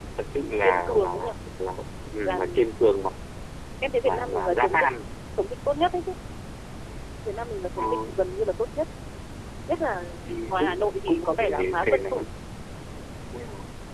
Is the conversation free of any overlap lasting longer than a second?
No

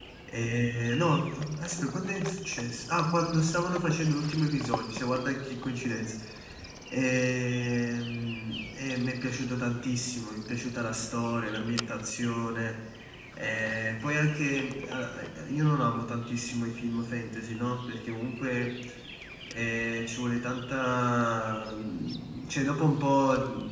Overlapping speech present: No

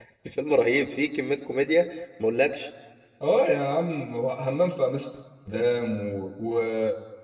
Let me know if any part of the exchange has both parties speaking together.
No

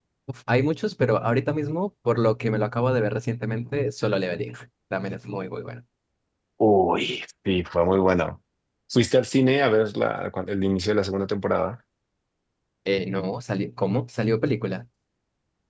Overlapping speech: No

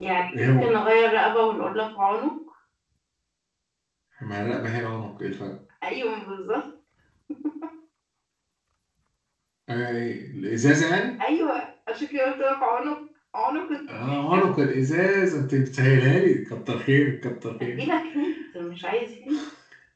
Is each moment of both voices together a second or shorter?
Yes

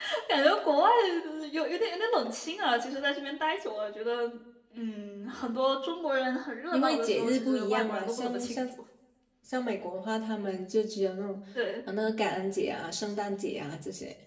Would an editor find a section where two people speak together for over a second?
Yes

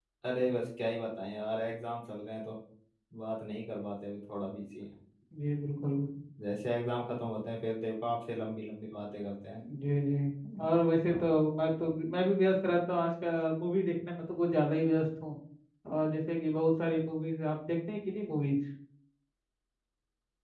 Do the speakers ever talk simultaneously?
No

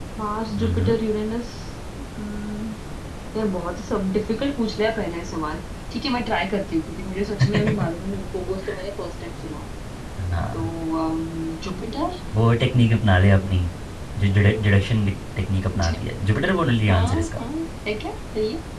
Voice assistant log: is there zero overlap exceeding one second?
Yes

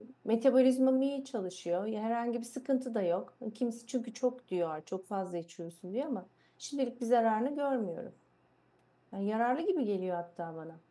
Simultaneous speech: No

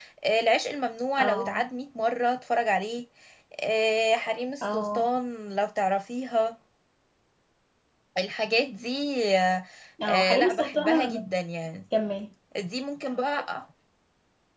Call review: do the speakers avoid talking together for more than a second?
No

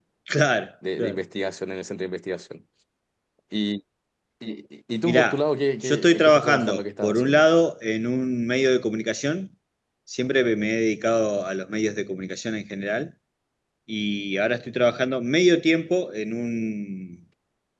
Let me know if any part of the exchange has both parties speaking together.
Yes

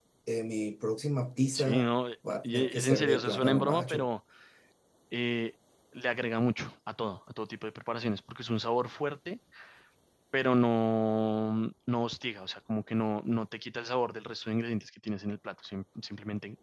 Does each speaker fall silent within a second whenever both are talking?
No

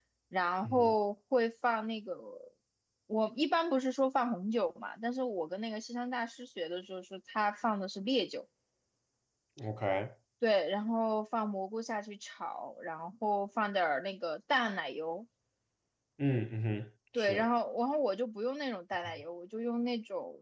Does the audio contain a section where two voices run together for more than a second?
No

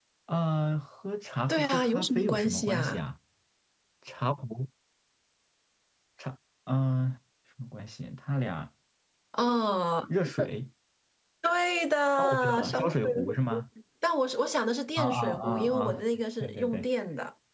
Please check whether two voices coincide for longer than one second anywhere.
Yes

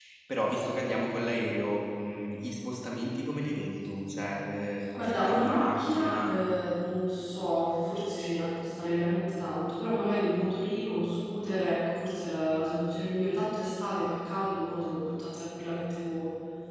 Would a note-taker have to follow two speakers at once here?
Yes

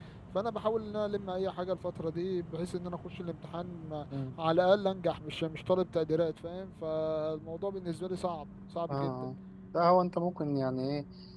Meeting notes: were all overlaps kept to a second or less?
Yes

